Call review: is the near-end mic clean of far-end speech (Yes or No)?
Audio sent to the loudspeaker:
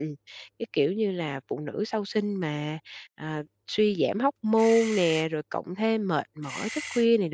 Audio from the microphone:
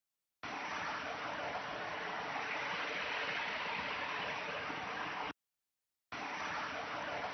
Yes